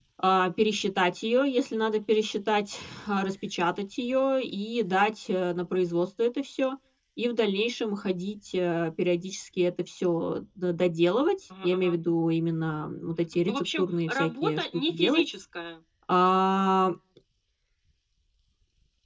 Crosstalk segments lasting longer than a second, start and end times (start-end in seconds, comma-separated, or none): 13.4-15.2